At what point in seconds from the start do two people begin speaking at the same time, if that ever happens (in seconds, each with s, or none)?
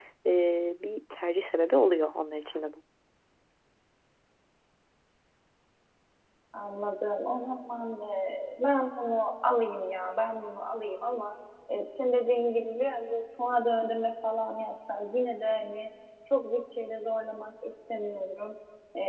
none